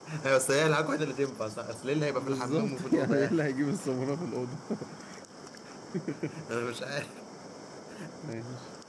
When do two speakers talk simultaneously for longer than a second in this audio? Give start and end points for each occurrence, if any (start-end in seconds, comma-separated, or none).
2.1-3.4